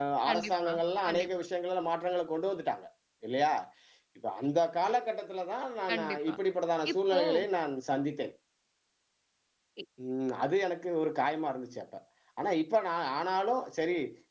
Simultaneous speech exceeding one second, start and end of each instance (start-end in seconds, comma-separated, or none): none